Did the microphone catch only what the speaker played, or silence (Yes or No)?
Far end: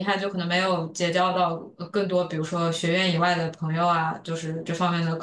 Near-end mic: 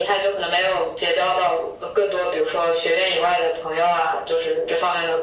Yes